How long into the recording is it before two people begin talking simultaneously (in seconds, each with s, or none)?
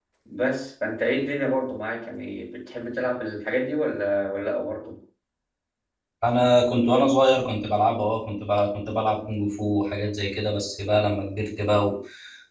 none